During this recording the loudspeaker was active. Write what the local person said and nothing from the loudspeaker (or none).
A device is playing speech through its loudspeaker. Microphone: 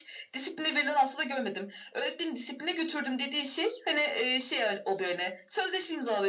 none